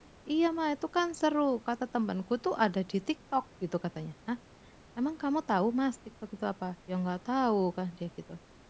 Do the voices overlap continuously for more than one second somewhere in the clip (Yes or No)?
No